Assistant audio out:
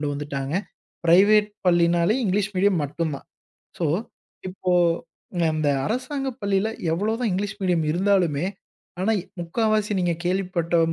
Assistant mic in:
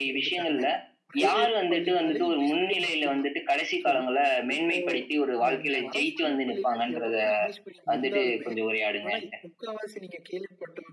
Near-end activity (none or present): present